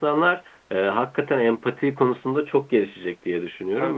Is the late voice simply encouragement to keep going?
Yes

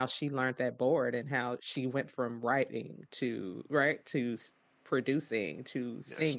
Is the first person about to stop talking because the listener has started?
No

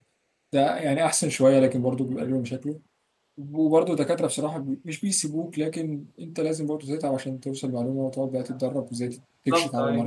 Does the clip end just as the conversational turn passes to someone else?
No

